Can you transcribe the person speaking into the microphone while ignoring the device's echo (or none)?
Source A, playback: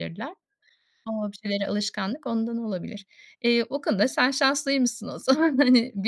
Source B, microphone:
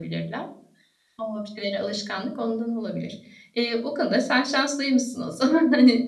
none